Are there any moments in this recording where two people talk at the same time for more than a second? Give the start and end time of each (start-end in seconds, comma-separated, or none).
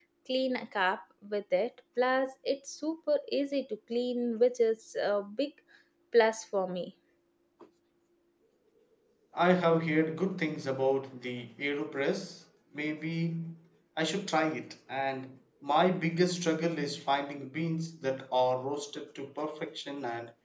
none